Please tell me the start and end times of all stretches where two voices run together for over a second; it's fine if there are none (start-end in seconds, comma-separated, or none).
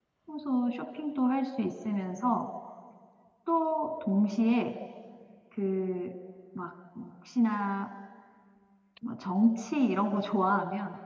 none